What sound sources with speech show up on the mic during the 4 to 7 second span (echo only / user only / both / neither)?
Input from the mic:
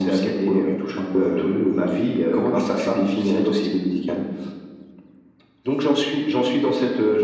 echo only